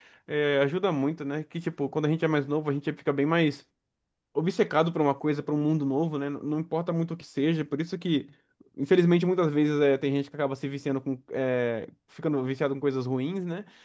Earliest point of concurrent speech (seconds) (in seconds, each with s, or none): none